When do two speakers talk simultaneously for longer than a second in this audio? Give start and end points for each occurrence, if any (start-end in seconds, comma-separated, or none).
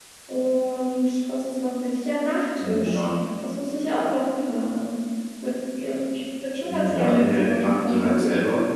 6.7-8.2